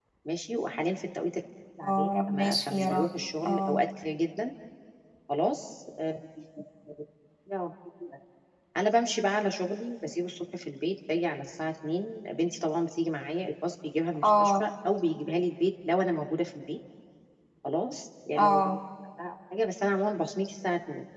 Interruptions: present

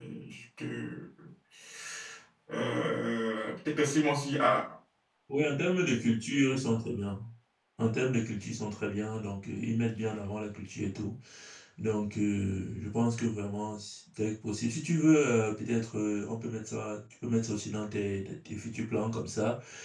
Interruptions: none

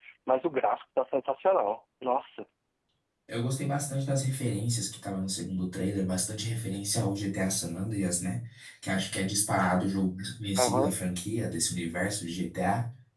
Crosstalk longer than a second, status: none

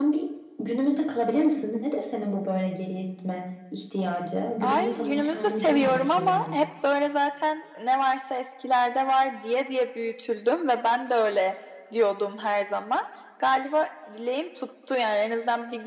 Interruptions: present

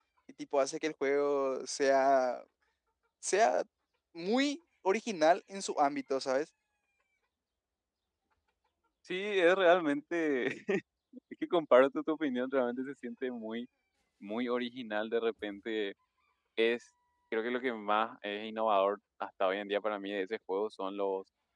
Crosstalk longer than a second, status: none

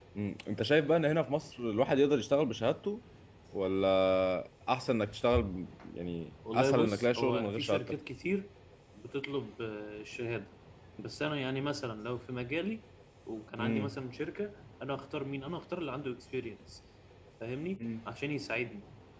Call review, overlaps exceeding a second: present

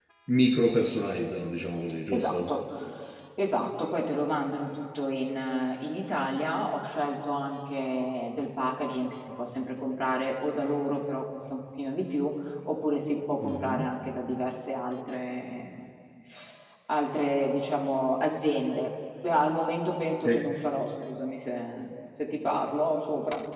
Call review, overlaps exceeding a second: none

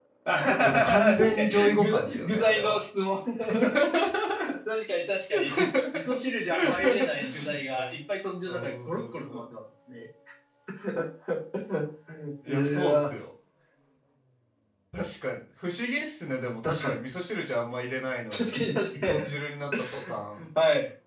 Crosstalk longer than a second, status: present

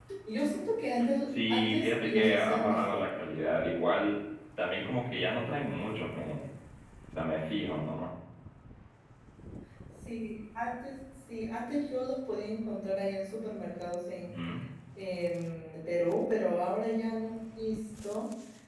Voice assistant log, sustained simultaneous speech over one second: present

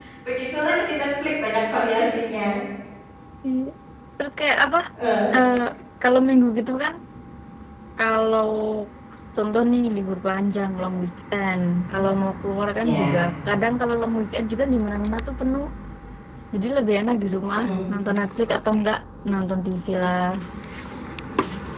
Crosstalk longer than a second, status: none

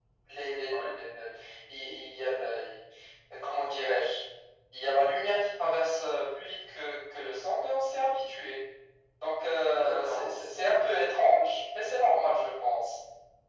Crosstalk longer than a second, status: present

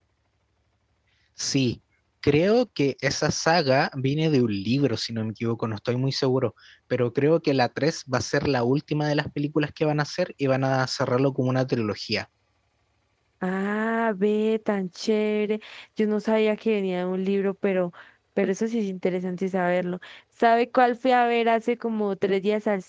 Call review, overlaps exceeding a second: none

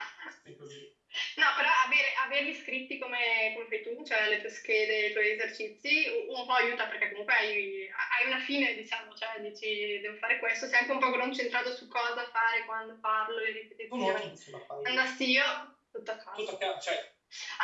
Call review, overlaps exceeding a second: none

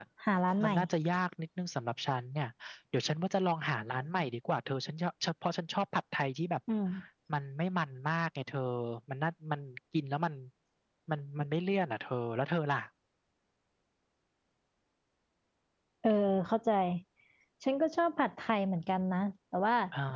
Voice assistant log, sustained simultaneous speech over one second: none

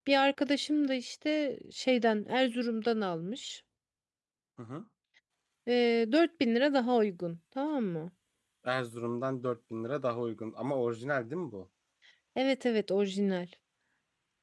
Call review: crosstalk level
none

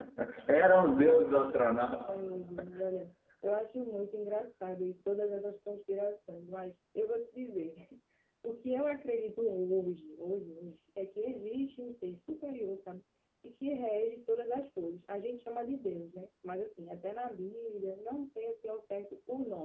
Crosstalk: none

